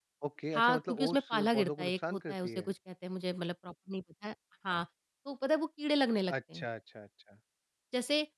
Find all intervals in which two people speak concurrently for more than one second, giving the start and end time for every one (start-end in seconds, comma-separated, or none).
0.5-2.7